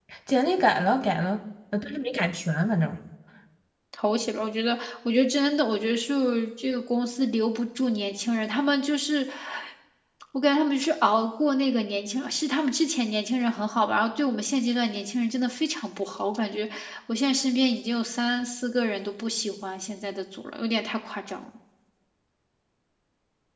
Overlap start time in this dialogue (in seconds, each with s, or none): none